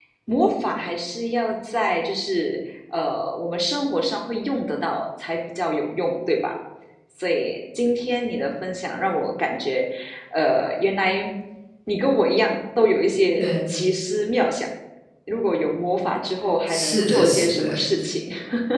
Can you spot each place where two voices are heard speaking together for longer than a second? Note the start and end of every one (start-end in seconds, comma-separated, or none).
16.7-17.9